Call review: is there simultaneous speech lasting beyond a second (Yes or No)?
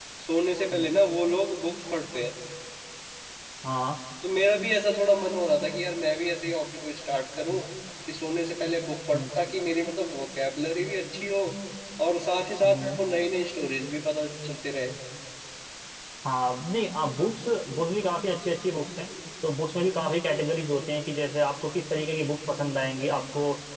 No